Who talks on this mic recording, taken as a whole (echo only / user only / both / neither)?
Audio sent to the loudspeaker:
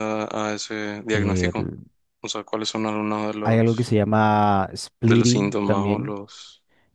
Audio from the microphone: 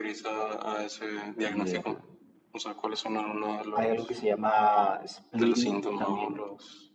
echo only